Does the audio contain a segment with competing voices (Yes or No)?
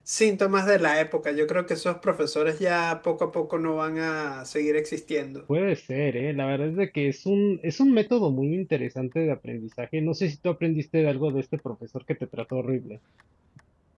No